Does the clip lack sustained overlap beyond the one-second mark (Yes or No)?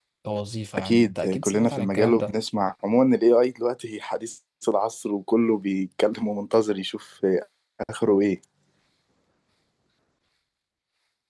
No